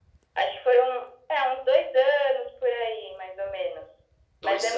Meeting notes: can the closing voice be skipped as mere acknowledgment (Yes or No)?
Yes